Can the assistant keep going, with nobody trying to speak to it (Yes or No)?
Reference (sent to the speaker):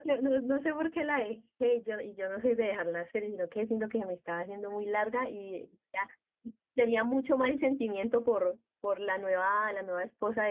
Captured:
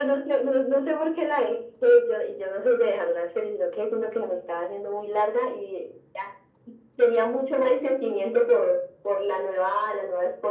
Yes